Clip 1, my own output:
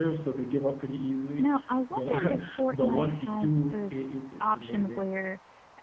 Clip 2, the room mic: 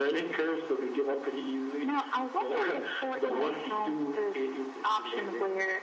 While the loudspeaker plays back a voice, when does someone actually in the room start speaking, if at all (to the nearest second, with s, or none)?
none